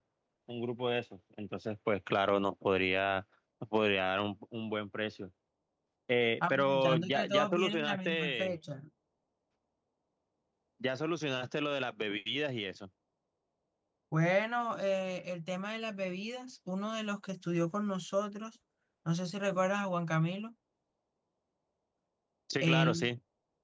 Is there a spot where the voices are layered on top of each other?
Yes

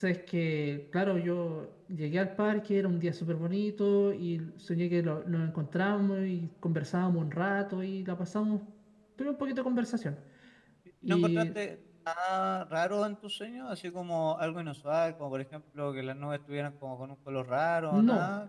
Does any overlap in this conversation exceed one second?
No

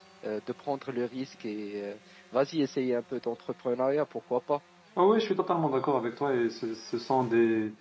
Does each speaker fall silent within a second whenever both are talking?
Yes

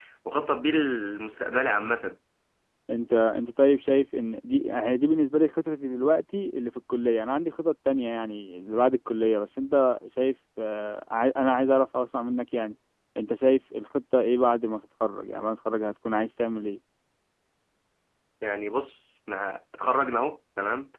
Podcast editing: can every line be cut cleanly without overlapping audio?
Yes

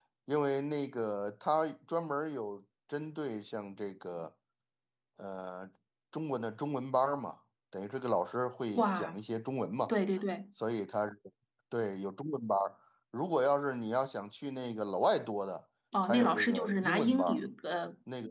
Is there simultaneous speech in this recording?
Yes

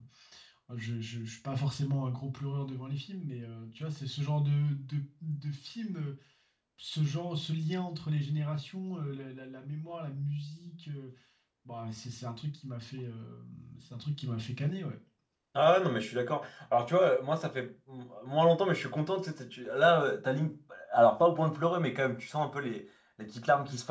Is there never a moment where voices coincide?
Yes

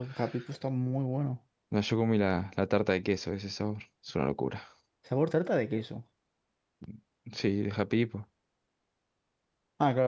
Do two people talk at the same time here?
No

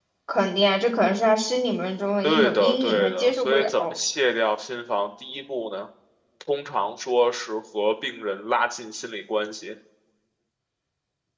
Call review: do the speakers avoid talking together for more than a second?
No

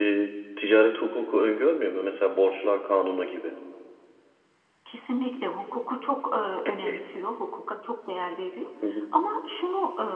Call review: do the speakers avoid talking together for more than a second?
Yes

